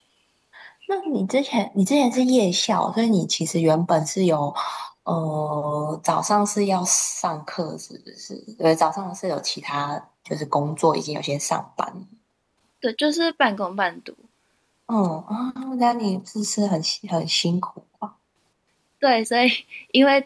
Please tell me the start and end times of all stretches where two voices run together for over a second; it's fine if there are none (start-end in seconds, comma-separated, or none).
none